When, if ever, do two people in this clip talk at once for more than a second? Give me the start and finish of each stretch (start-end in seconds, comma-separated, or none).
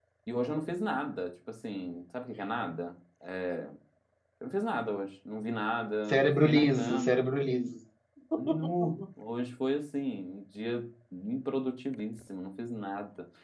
6.1-7.3